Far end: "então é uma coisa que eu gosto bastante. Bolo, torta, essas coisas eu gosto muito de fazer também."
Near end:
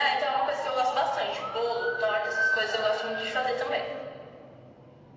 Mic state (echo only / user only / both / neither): echo only